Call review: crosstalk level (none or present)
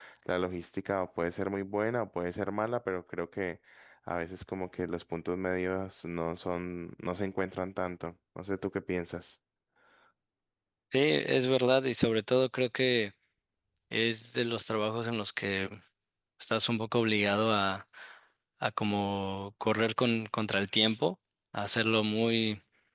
none